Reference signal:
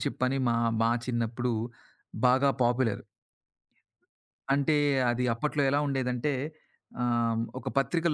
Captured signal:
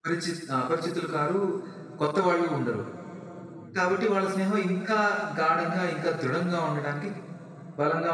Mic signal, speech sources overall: user only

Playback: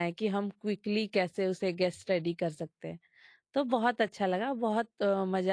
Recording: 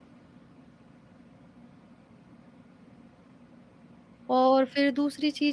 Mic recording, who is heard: user only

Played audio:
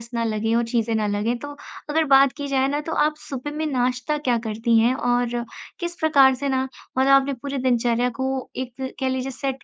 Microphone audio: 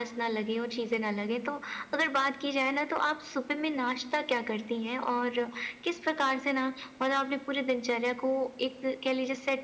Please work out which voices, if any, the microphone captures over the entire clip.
echo only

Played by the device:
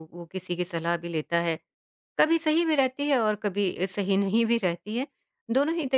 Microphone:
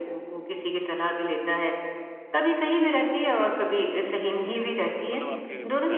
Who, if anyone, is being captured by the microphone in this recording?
both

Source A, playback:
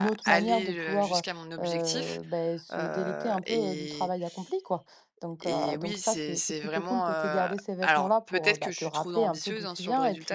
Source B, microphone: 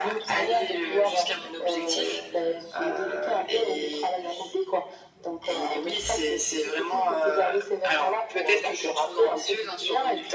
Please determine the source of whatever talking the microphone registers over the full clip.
echo only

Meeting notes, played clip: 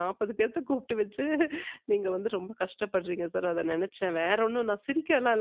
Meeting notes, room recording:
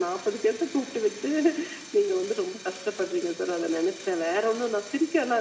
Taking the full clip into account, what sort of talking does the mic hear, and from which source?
echo only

